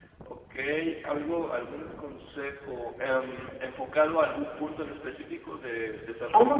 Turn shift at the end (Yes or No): Yes